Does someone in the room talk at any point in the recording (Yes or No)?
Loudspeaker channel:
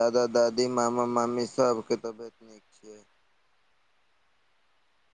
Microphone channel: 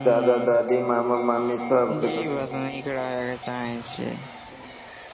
Yes